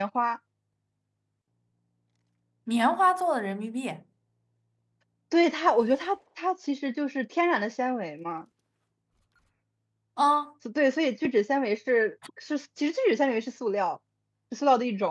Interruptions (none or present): none